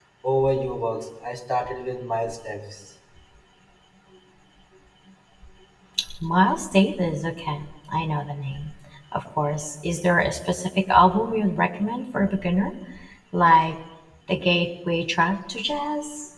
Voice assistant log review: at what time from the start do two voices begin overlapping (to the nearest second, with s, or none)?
none